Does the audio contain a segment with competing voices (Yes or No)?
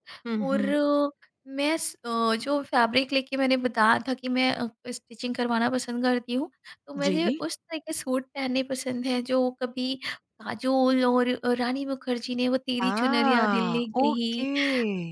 Yes